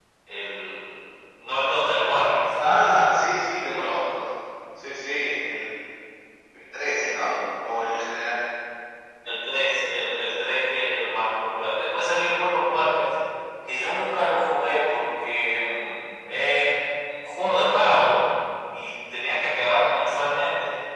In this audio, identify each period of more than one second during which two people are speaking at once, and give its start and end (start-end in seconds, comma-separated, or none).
none